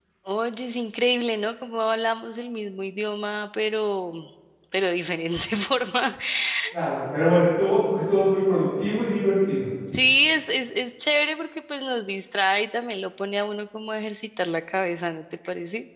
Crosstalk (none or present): none